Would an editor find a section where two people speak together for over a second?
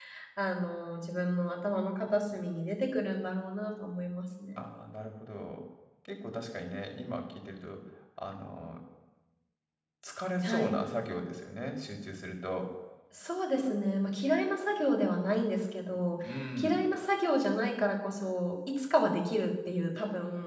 No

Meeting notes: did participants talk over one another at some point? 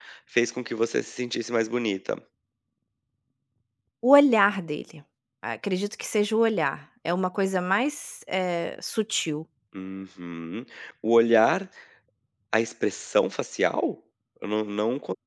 No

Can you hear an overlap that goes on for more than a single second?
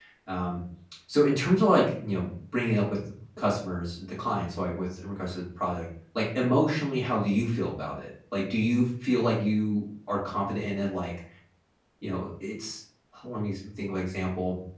No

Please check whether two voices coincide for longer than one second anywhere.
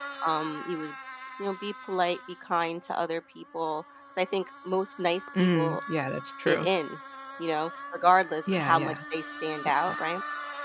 No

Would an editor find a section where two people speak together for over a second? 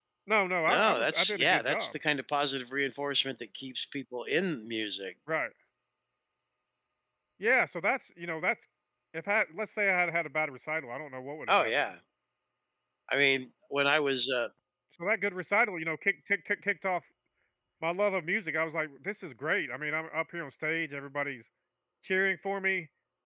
Yes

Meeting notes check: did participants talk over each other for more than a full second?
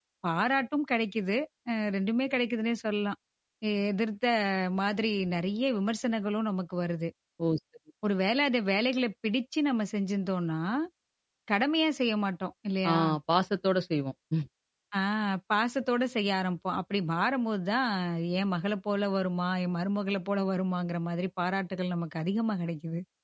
No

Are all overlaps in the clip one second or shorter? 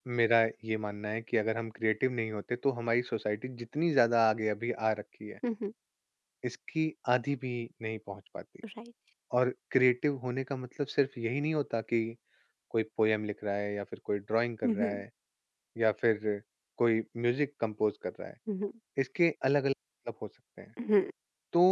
Yes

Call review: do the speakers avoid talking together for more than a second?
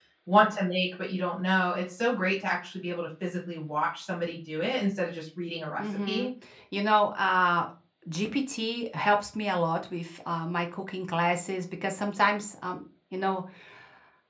Yes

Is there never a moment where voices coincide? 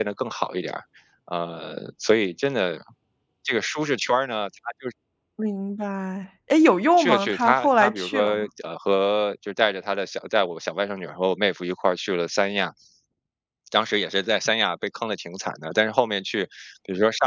No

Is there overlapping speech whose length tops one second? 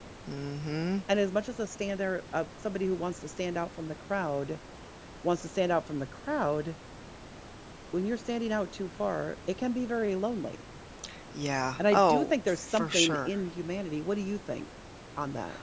Yes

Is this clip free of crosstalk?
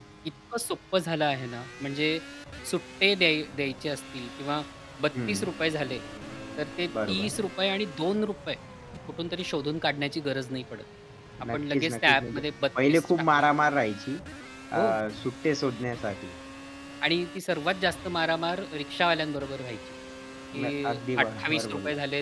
No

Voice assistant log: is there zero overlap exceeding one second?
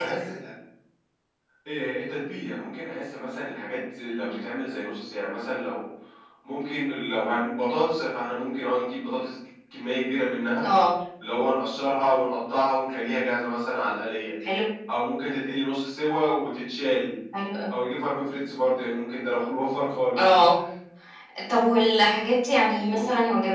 Yes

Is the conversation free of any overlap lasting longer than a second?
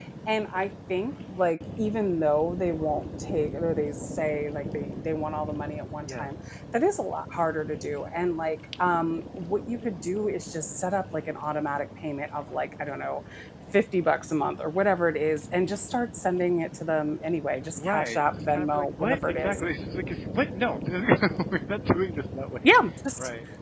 No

